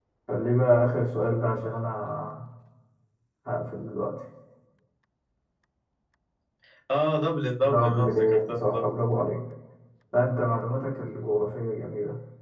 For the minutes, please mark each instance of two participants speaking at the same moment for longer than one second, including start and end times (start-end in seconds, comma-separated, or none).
7.6-8.9